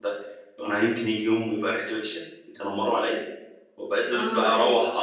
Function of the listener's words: listening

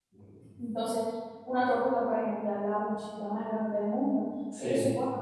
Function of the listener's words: listening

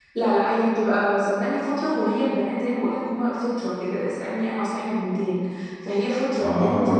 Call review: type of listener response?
listening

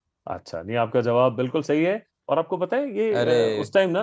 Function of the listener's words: listening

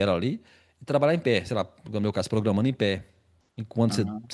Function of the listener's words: listening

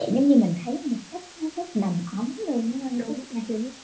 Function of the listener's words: taking over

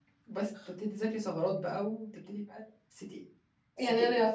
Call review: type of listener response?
taking over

